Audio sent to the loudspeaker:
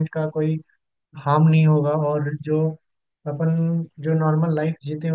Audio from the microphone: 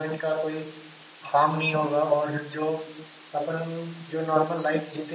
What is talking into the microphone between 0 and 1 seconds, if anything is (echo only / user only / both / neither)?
echo only